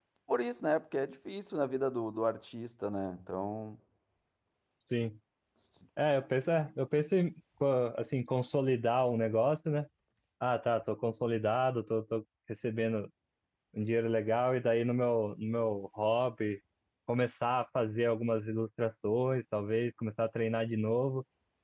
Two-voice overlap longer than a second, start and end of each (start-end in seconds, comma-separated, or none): none